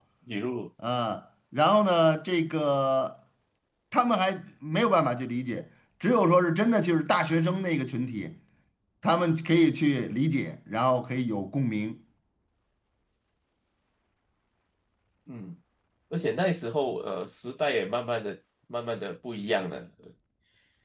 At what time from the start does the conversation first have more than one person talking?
none

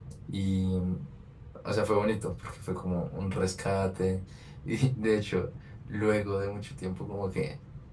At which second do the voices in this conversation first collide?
none

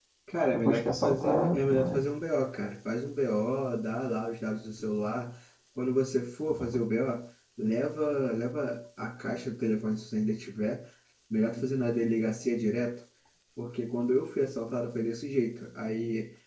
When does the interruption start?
1 s

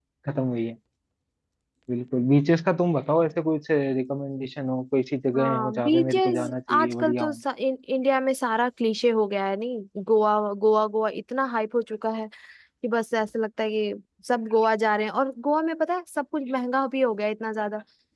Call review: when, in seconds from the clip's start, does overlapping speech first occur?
5 s

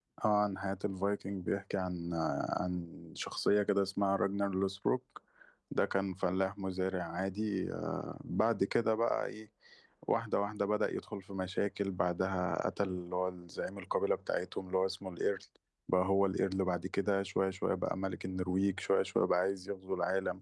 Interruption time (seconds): none

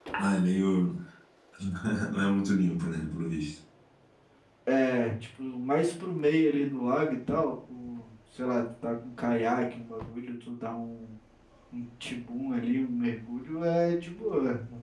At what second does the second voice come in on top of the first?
none

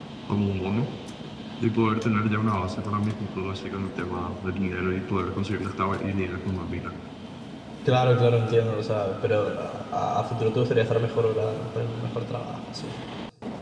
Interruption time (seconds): none

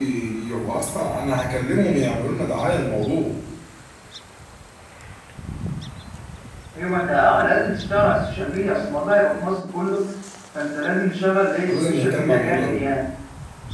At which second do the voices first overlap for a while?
12 s

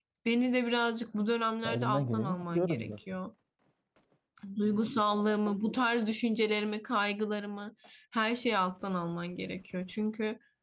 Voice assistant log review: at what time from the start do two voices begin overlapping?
2 s

